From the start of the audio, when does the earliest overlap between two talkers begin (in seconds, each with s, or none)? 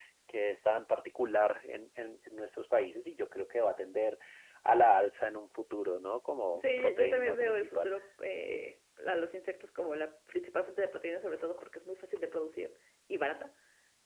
6.5 s